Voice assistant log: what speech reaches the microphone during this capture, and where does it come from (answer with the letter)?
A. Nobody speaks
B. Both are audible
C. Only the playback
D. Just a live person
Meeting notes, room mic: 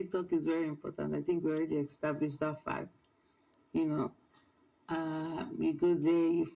C